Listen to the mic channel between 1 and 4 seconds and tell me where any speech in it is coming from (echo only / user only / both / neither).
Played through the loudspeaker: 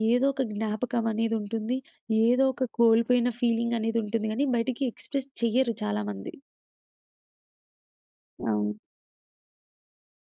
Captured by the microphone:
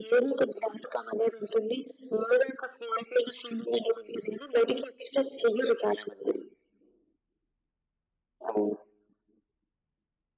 echo only